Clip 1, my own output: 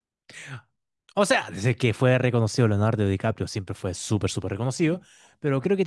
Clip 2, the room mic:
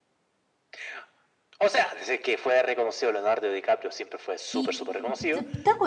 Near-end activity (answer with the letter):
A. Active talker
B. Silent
A